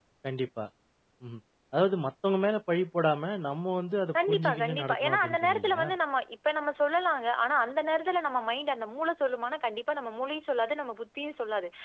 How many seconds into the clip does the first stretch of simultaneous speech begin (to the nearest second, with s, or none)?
4 s